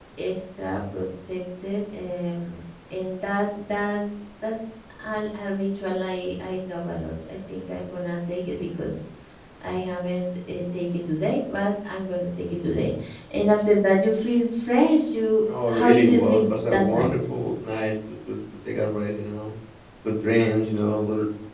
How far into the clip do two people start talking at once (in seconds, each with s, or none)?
15.8 s